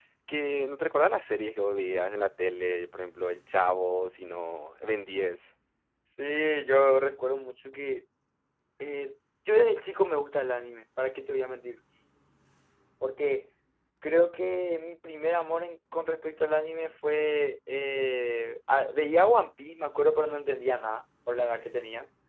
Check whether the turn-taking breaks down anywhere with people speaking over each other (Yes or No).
No